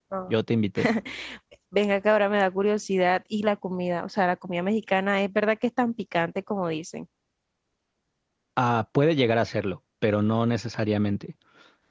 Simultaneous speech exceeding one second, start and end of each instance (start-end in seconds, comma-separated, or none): none